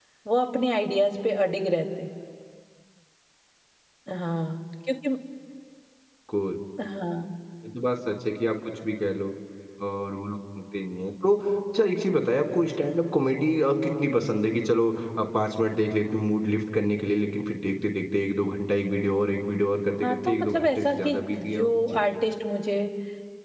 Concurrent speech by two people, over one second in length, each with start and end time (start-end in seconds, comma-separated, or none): 20.0-22.0